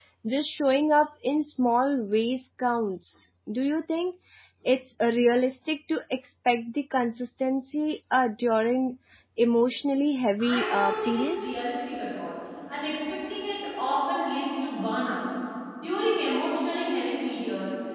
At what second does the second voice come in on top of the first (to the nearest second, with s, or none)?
10 s